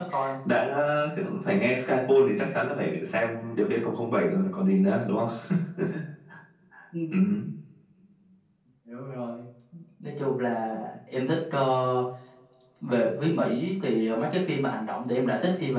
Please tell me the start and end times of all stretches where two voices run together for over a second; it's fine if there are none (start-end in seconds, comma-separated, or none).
none